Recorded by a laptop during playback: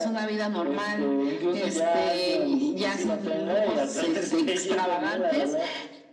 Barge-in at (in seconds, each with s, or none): none